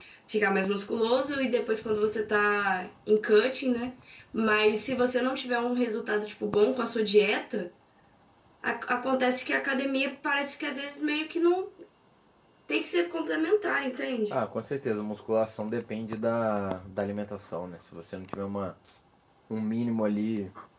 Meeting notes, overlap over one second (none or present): none